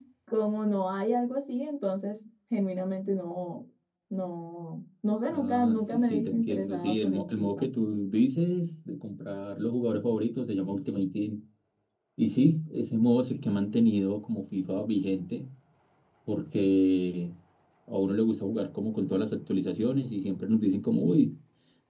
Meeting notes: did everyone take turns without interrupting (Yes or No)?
No